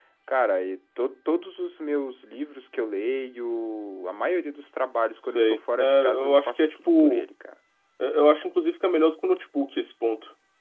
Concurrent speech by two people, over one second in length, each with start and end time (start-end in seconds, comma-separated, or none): 5.2-7.3